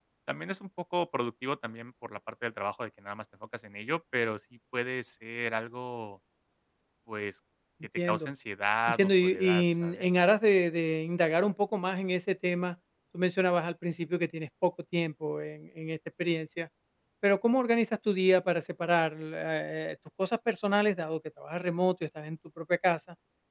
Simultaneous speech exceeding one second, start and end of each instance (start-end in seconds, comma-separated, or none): 8.9-10.1